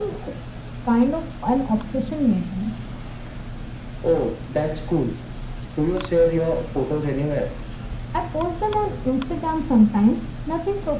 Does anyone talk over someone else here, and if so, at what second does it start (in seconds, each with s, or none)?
none